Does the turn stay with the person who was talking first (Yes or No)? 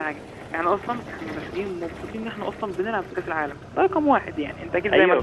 No